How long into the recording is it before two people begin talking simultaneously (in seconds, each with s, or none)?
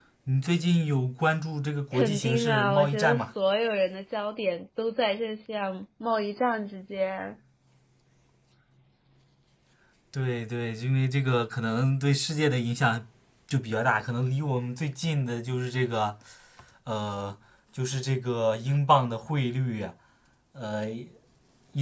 1.9 s